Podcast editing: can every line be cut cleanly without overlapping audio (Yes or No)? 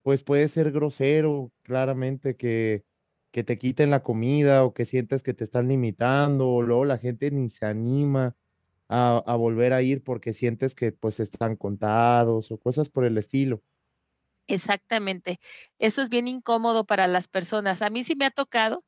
Yes